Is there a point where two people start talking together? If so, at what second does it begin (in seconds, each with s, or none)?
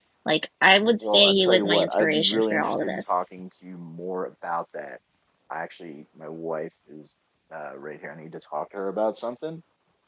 1.0 s